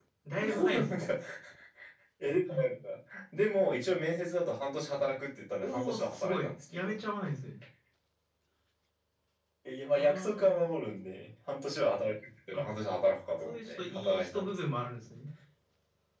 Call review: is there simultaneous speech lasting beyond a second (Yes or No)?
Yes